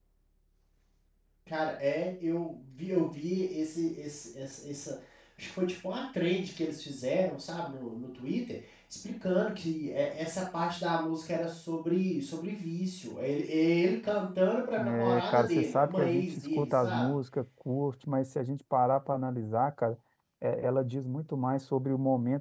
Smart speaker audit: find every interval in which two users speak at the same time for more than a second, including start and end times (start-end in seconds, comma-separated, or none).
15.0-17.1